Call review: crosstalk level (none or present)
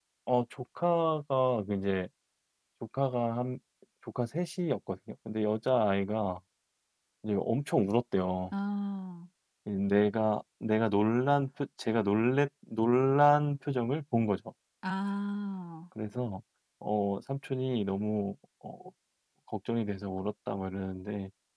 none